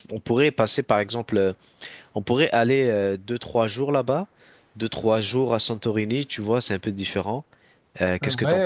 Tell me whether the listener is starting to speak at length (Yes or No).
Yes